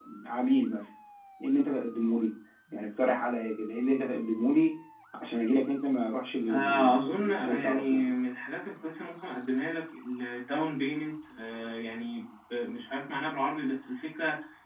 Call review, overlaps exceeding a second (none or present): present